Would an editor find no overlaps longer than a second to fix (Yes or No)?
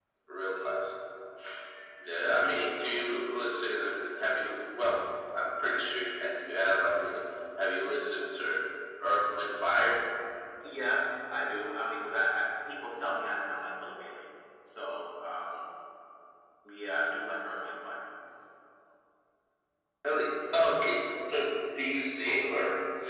Yes